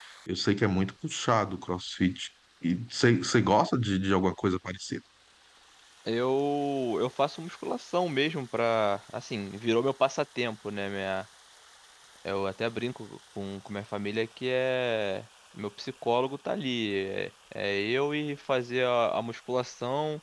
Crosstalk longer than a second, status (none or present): none